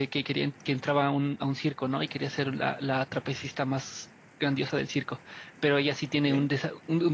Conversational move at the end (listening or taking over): listening